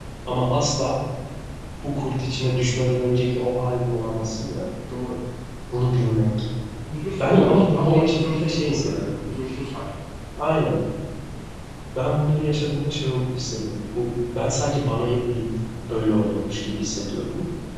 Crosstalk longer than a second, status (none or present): present